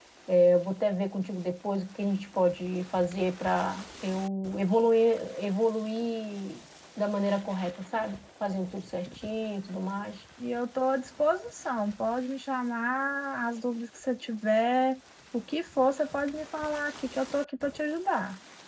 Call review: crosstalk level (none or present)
none